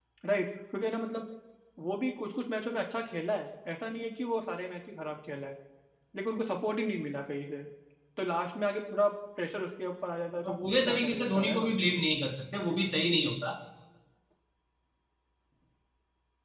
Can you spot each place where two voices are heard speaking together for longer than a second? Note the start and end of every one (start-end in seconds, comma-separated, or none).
10.4-11.7